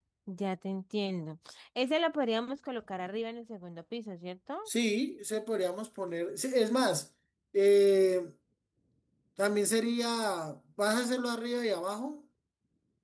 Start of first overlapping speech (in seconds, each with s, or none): none